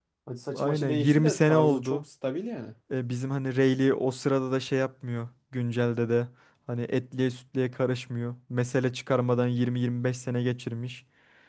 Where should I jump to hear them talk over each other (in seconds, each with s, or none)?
0.5 s